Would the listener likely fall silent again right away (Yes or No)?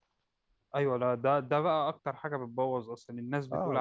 No